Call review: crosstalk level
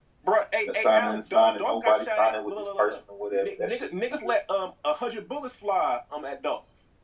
present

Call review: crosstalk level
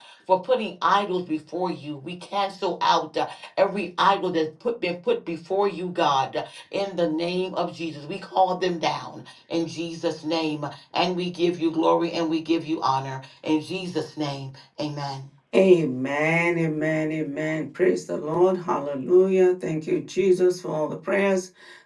none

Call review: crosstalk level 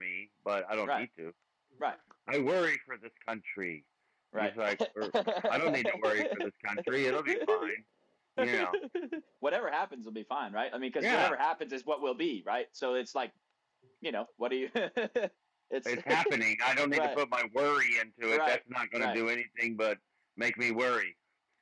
present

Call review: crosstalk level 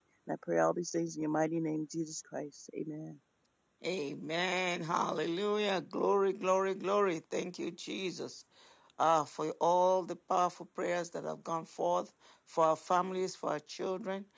none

